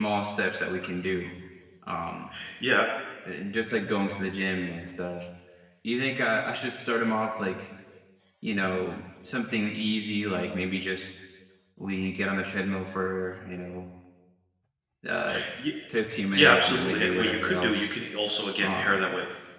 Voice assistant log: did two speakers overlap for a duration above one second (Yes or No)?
Yes